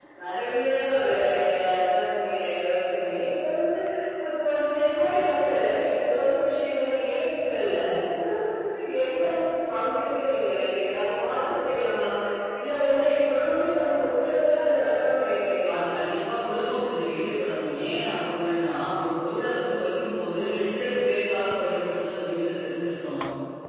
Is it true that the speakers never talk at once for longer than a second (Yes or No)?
Yes